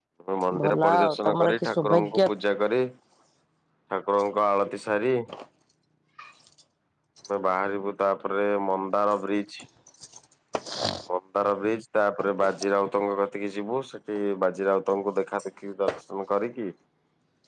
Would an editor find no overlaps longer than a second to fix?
No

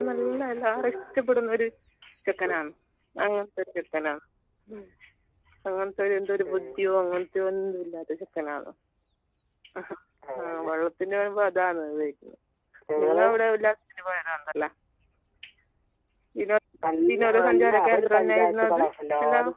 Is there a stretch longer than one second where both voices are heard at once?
Yes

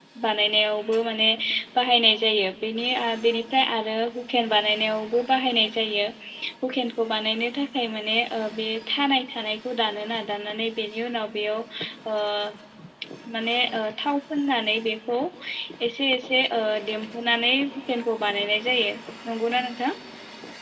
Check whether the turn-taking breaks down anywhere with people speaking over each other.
No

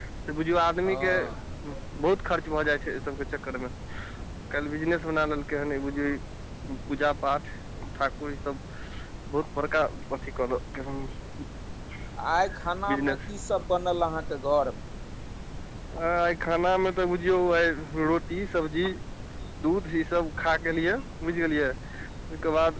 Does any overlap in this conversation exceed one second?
No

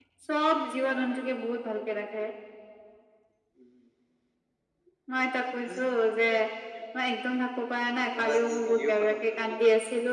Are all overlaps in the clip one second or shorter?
No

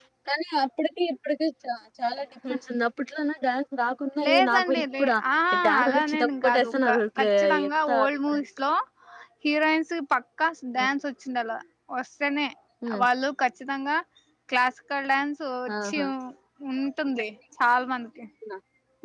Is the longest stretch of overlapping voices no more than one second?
No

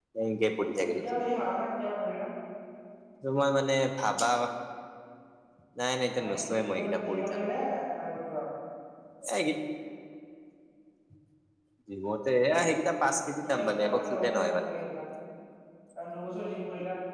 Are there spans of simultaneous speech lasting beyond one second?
Yes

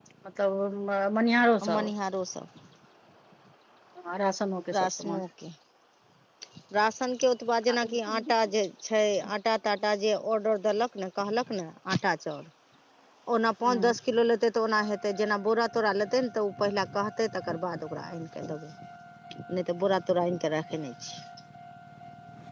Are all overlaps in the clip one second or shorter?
Yes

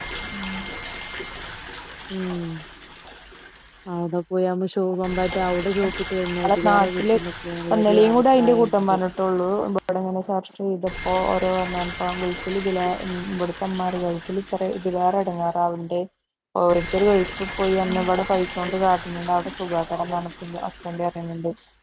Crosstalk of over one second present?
Yes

